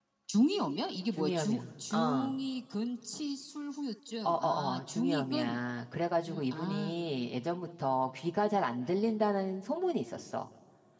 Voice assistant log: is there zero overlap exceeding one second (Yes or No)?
No